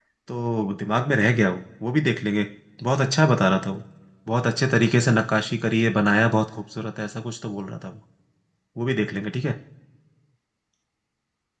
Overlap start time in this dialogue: none

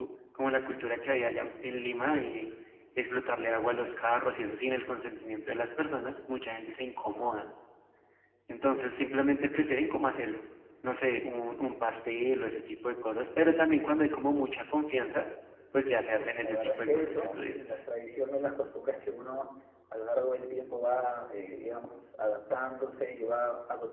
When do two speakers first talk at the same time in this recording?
16 s

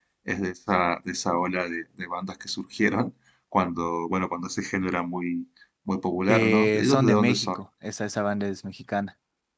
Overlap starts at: 6 s

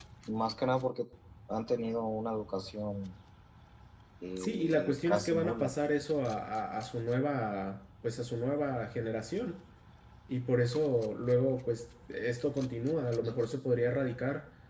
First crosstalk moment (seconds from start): 4 s

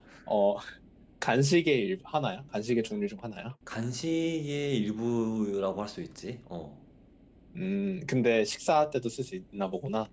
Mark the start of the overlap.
none

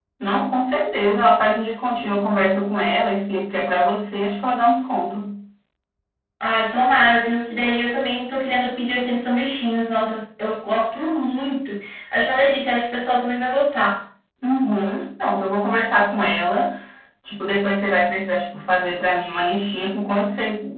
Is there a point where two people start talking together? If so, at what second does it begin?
none

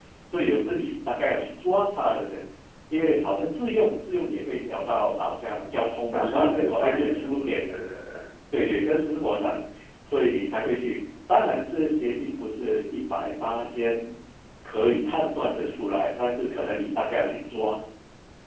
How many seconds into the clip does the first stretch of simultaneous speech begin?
6 s

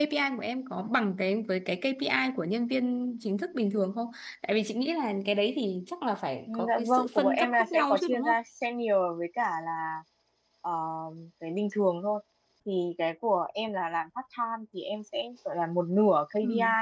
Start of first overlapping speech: 6 s

